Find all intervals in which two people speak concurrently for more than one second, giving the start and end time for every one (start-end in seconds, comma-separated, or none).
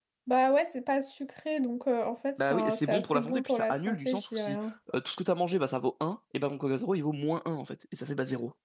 2.4-4.6